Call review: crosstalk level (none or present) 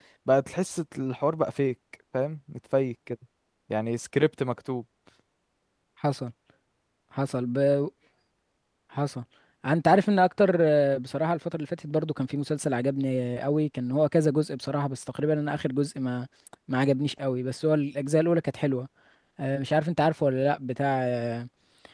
none